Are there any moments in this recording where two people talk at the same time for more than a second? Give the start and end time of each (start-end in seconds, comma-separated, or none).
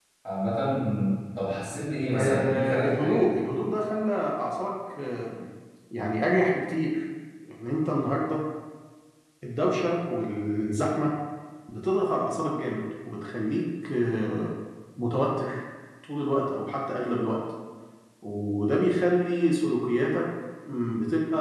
2.1-3.4